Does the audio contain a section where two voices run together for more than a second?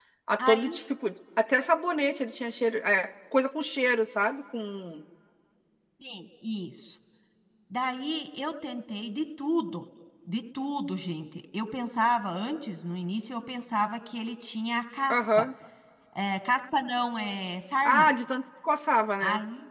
No

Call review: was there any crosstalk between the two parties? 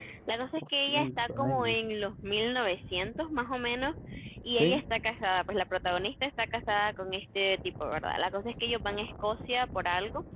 Yes, from 0.6 s

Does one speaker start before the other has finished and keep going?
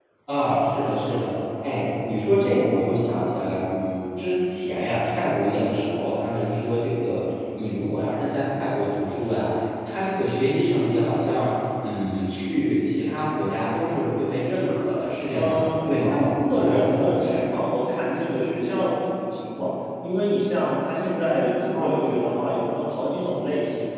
Yes, from 15.3 s

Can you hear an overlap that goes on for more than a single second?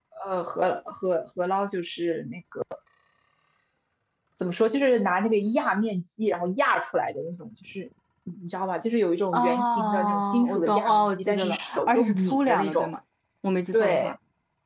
Yes, from 9.3 s

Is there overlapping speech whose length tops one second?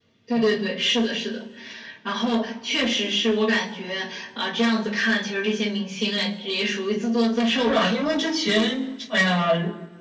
No

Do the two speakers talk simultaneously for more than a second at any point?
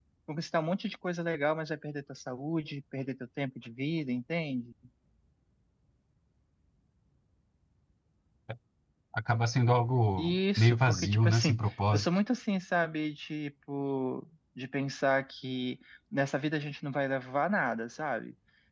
Yes, from 10.2 s

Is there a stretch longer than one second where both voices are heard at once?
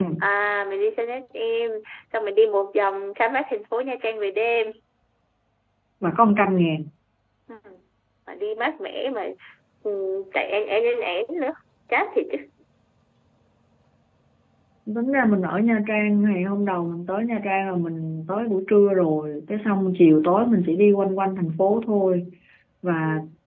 No

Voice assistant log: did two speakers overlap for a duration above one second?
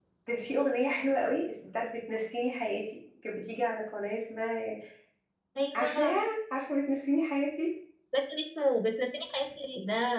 No

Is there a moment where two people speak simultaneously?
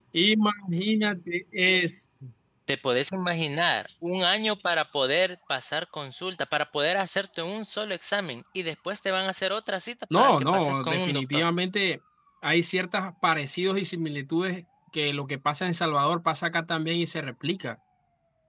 Yes, from 10.1 s

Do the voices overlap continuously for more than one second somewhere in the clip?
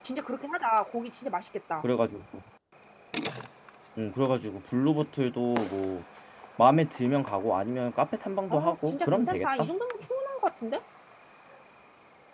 Yes, from 8.5 s

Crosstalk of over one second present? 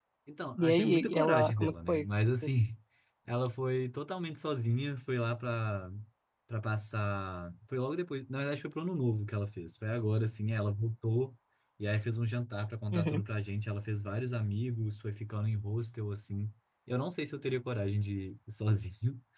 Yes, from 0.6 s

